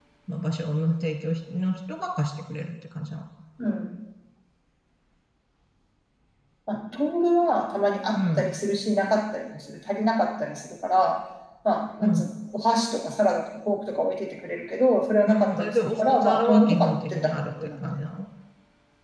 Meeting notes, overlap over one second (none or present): present